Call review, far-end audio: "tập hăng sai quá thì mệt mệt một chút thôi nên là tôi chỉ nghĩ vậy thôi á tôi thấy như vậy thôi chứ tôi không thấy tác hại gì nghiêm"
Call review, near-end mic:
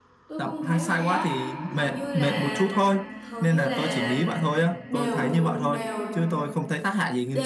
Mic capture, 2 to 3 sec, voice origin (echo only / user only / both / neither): both